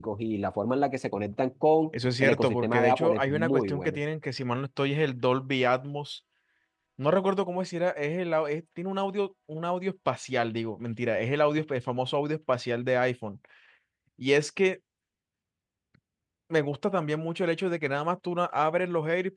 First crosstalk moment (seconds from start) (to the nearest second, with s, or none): 2 s